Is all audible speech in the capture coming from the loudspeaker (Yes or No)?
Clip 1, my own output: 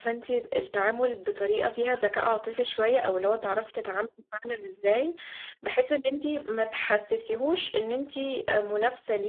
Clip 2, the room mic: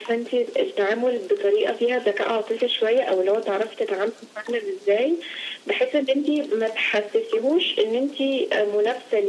Yes